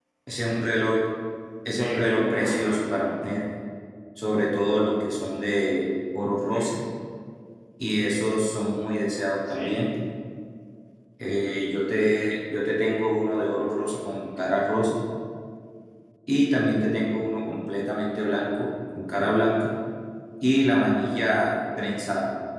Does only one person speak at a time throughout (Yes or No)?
No